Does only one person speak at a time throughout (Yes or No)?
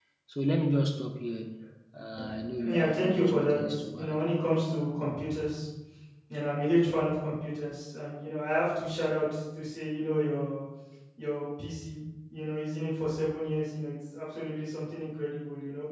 No